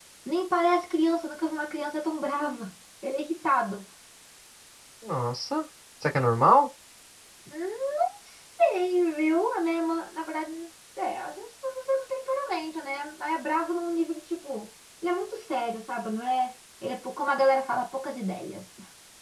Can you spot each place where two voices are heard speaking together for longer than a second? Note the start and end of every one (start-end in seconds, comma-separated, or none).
none